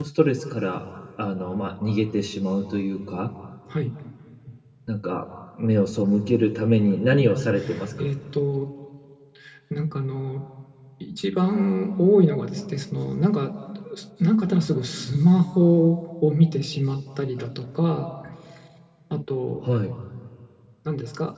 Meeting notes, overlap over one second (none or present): none